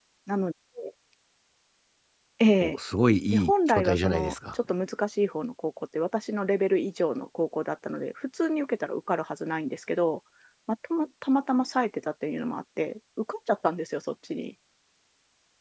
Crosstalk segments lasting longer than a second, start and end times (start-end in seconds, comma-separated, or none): 3.3-4.5